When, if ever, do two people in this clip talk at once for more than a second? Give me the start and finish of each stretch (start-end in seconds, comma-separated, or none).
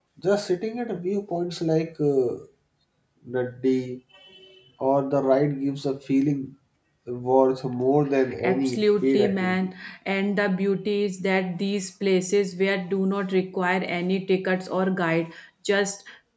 8.4-9.7